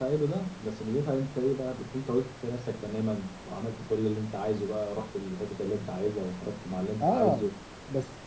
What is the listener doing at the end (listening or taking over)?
taking over